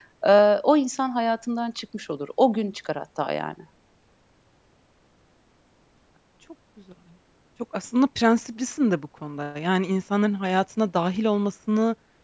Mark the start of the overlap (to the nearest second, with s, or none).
none